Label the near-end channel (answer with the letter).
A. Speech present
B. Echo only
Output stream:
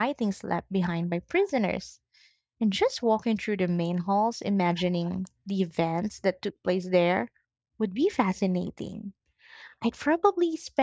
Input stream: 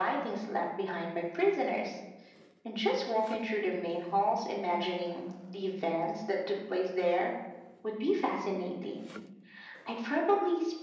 B